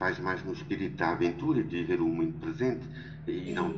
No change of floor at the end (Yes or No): Yes